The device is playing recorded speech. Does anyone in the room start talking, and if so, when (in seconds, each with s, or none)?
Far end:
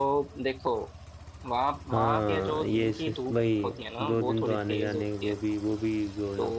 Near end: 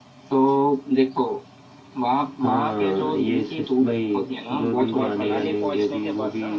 4.7 s